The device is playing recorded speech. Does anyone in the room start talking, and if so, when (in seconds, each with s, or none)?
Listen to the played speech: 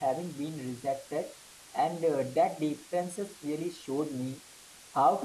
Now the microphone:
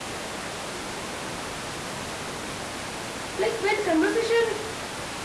3.4 s